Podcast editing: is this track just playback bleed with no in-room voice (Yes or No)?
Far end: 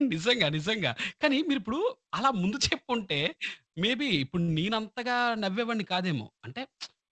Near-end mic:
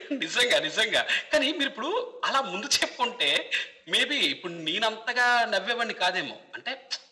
Yes